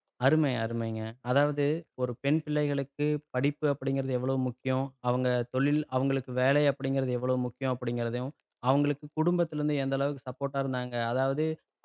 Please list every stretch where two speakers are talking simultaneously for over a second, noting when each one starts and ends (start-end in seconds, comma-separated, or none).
none